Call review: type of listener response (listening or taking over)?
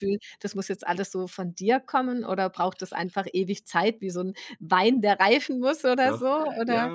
taking over